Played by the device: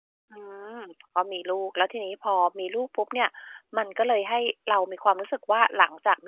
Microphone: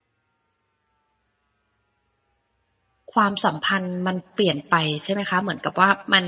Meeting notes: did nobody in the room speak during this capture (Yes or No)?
No